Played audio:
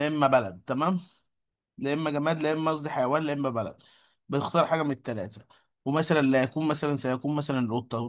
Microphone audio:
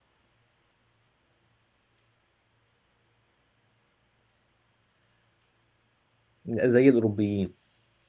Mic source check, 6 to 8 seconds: user only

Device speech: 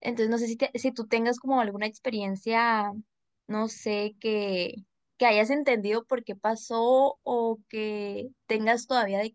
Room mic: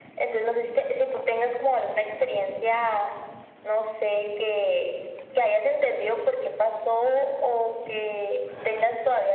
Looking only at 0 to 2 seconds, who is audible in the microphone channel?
echo only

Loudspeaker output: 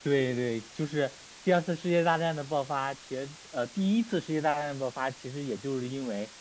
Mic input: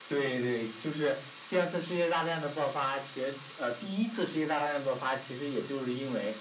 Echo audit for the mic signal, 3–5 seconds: echo only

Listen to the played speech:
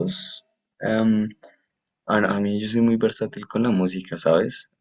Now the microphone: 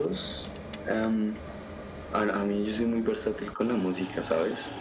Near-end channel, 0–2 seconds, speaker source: echo only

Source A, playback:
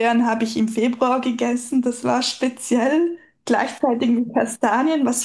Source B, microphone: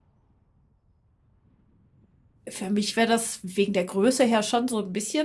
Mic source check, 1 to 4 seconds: user only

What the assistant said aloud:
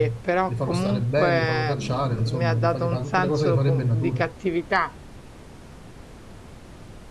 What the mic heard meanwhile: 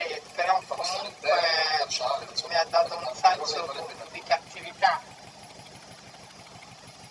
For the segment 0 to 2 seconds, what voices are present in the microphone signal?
echo only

